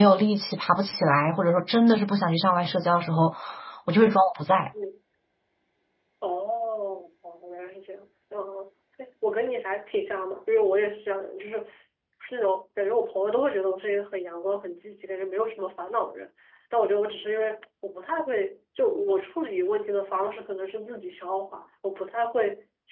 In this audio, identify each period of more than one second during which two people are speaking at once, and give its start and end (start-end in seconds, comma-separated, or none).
none